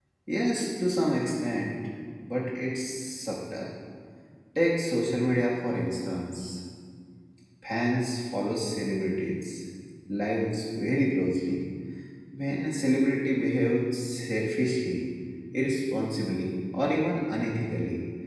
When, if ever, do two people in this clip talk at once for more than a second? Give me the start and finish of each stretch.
none

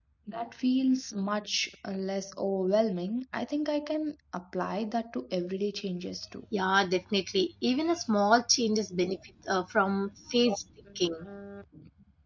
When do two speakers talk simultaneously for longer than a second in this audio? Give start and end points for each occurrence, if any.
none

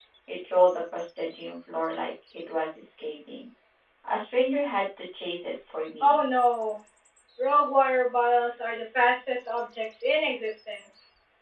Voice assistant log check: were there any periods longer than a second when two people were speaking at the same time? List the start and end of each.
none

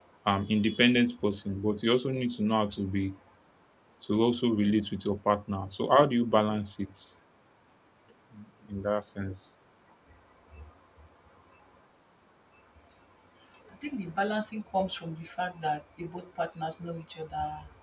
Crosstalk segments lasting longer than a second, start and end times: none

